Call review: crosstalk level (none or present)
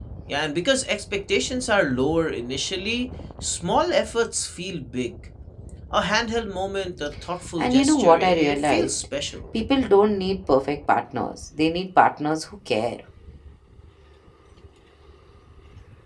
present